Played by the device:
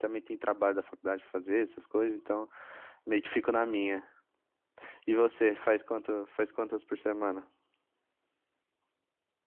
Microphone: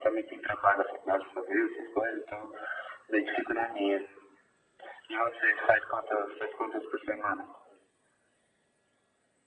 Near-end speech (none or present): none